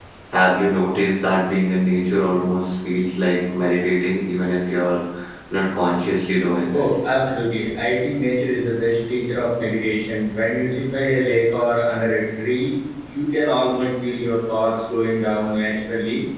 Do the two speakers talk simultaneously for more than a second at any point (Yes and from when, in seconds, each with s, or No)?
No